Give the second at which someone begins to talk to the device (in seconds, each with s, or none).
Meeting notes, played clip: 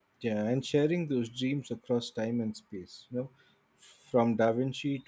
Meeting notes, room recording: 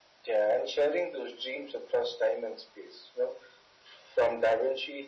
none